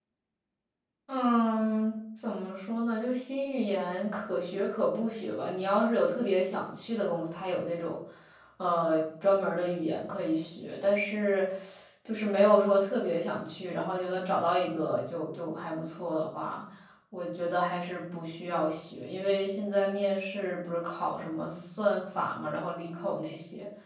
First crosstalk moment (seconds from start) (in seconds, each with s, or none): none